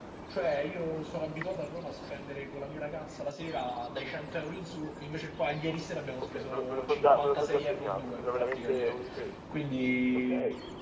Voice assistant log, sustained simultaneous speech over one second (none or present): present